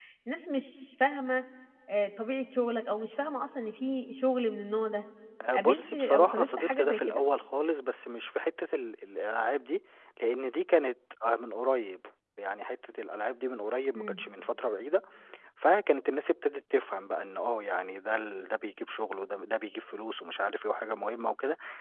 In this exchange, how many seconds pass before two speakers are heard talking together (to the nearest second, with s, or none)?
6 s